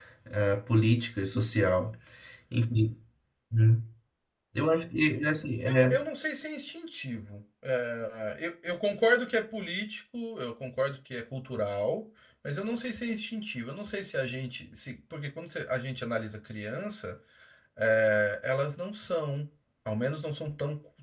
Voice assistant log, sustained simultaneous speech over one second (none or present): none